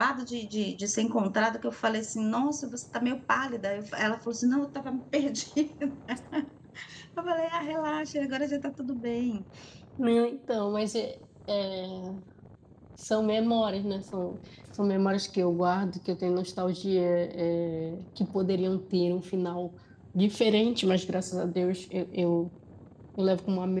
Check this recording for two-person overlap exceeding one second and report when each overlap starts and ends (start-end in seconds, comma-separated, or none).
none